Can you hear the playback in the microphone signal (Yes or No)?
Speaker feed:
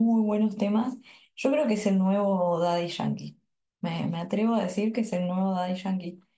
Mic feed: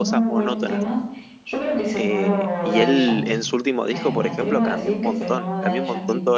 Yes